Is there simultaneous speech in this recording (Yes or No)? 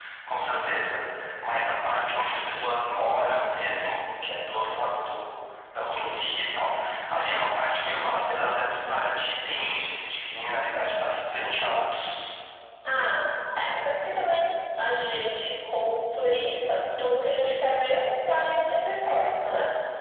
No